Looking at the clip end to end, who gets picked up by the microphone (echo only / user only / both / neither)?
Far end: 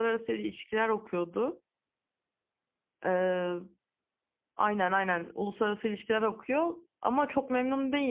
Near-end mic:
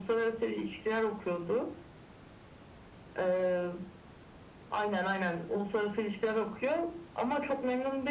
echo only